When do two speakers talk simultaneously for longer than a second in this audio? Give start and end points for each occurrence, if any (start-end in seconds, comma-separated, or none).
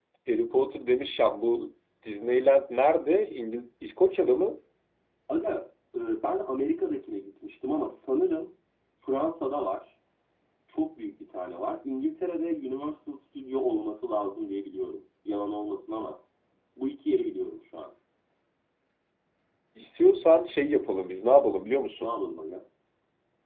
none